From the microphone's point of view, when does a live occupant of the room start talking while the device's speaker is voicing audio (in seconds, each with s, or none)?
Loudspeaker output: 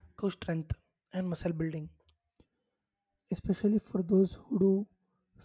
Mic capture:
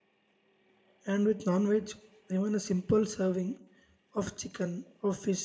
1.1 s